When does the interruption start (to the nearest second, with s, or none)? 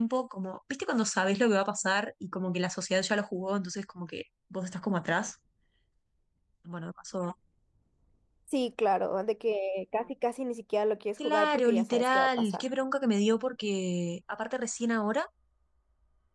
11 s